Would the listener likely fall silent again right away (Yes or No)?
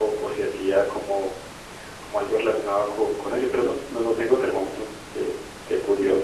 No